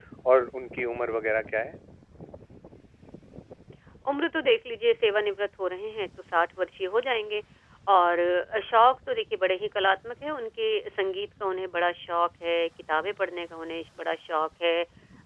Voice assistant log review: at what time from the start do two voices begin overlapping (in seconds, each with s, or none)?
none